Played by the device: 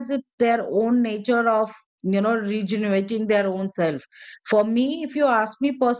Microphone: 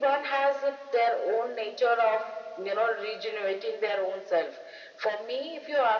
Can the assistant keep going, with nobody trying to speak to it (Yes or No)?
Yes